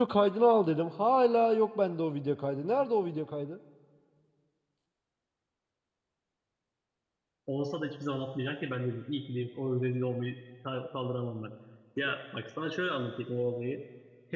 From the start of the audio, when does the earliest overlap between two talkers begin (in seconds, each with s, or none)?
none